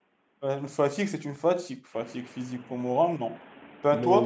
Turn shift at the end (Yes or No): Yes